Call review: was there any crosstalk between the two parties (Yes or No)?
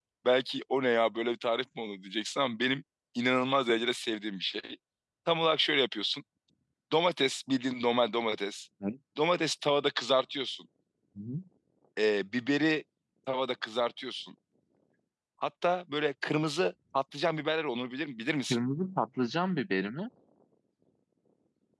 No